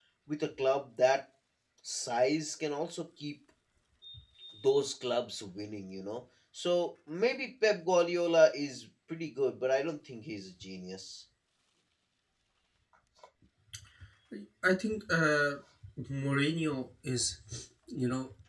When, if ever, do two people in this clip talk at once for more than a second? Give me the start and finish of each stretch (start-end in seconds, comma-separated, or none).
none